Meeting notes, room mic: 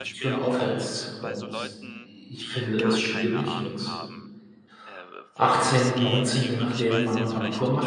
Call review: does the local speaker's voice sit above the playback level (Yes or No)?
Yes